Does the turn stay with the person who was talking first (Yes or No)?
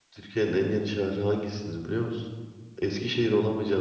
Yes